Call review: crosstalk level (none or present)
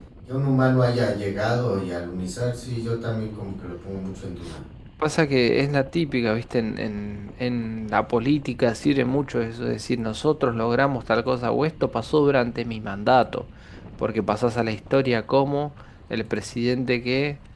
none